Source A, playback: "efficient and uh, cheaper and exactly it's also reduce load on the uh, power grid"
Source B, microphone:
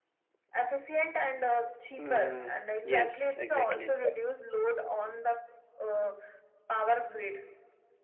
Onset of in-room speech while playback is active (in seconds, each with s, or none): 2.0 s